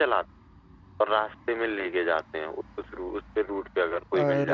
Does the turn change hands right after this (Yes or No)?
Yes